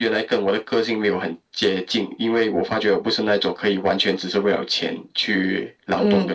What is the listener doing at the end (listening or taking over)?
taking over